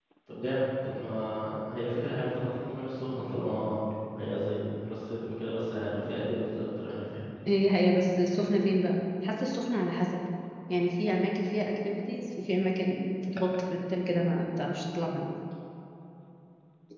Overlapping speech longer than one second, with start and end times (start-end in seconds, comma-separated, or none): none